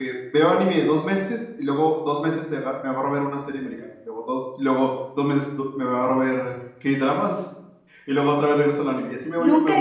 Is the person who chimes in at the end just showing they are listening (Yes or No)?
No